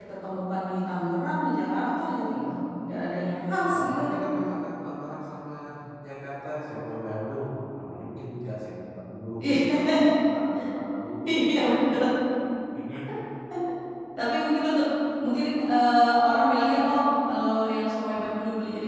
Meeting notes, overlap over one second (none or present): none